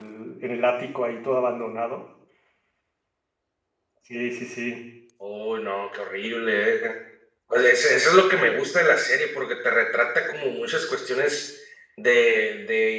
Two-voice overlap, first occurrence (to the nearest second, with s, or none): none